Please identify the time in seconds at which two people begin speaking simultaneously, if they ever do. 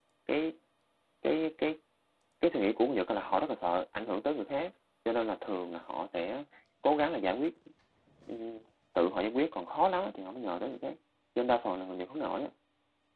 none

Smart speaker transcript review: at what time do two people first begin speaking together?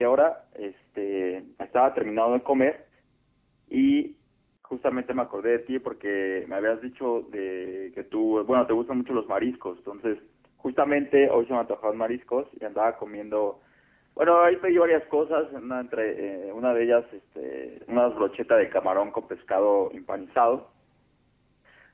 none

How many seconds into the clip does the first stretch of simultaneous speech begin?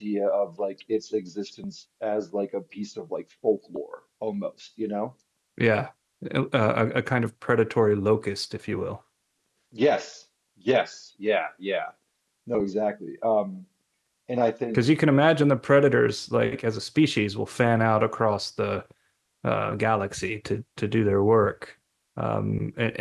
none

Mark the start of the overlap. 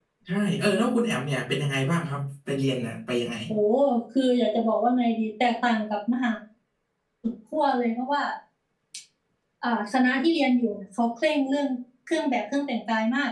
none

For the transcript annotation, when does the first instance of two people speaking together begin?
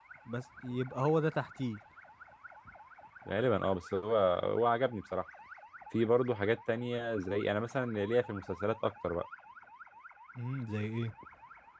none

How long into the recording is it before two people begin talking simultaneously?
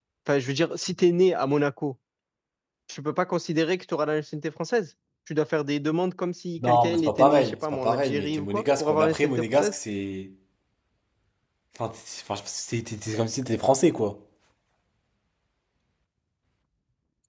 6.6 s

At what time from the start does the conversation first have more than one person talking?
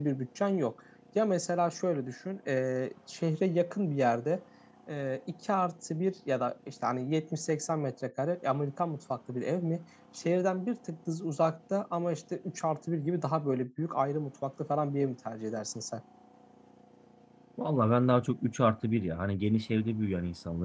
none

